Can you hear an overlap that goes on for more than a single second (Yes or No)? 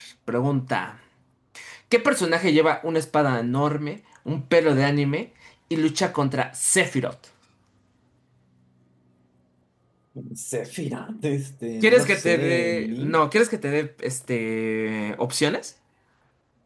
Yes